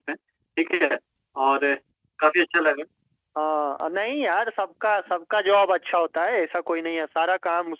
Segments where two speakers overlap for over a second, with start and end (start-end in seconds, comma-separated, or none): none